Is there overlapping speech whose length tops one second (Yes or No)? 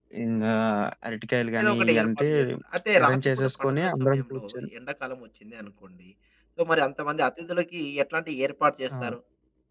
Yes